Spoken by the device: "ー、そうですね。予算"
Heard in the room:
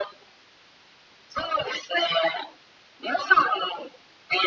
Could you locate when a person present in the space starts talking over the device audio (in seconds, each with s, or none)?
none